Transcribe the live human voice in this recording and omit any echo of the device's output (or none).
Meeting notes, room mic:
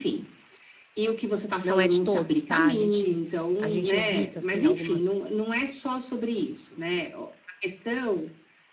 não é de todos, tá? A gente a gente evita assim algumas